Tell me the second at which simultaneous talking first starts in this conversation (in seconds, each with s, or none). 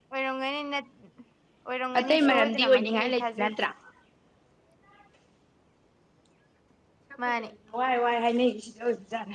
2.0 s